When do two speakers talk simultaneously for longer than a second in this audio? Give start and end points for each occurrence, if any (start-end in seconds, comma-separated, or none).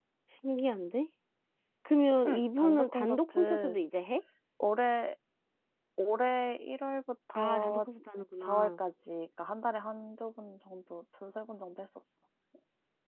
2.3-3.8